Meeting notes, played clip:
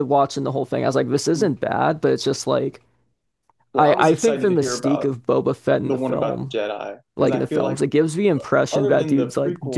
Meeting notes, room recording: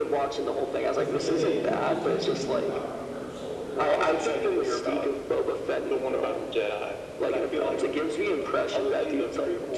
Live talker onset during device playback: 0.9 s

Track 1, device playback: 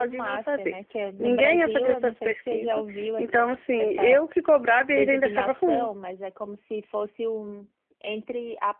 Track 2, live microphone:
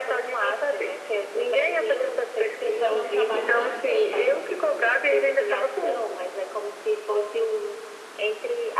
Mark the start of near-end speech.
2.7 s

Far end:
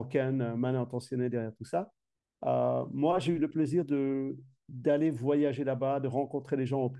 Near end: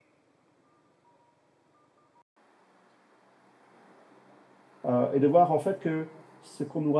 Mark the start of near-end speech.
4.8 s

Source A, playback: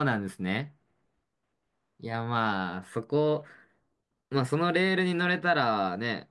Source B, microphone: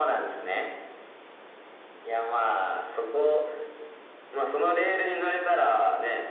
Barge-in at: none

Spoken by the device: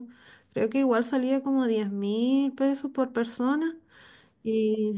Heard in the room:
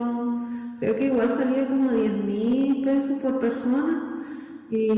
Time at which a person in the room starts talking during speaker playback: none

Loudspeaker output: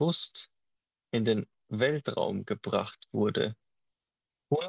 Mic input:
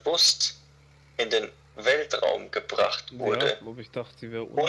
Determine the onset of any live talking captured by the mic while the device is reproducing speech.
3.1 s

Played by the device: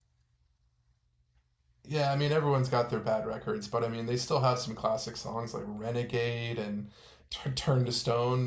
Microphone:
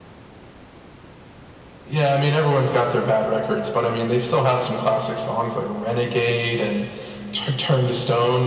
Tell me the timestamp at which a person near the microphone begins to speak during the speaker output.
none

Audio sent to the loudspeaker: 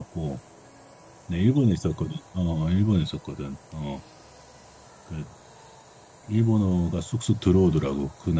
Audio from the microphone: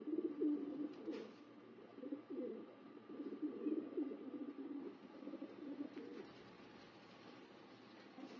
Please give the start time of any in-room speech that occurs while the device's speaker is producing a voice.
none

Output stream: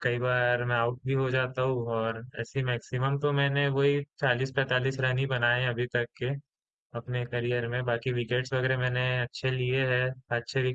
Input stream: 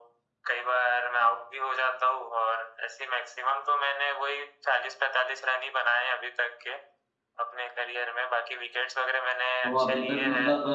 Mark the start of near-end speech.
9.7 s

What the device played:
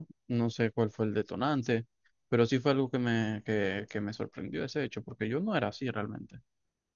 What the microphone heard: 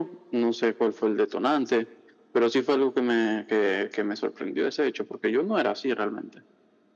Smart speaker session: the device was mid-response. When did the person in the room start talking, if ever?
none

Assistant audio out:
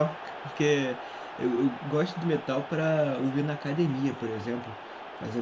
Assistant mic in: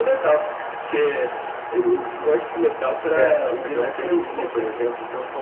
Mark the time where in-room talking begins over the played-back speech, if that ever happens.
3.1 s

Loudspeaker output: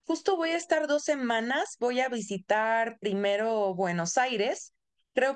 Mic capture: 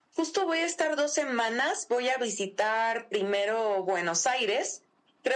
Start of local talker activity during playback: none

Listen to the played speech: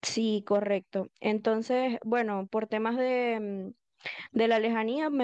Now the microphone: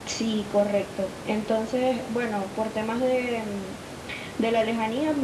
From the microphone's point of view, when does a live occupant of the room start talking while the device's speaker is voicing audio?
none

